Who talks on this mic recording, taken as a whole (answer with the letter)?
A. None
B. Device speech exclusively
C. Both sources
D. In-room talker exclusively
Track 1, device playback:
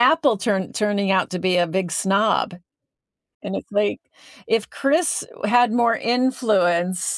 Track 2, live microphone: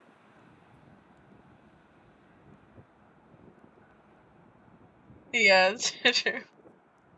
D